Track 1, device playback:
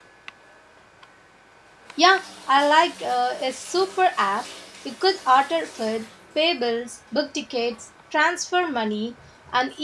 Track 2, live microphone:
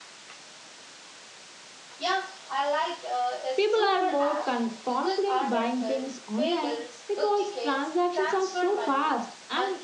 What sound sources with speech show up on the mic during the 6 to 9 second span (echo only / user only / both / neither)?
both